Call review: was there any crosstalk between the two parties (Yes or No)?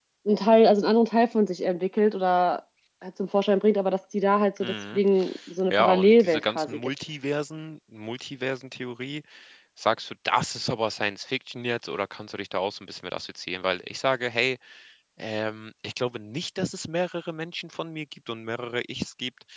Yes